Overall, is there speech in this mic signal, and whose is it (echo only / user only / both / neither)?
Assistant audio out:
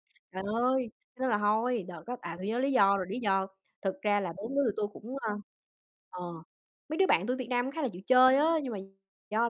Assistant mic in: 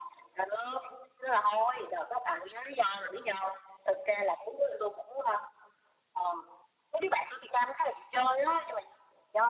echo only